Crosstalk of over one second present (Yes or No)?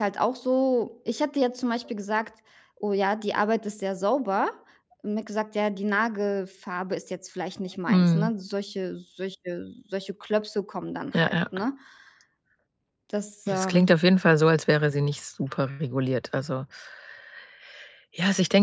No